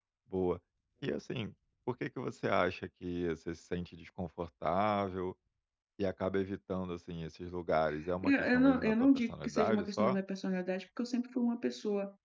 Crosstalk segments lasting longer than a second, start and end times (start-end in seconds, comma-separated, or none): 8.2-10.2